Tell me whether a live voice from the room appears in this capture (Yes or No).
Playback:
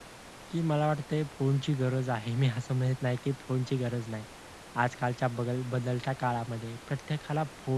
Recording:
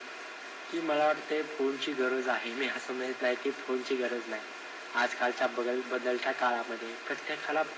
No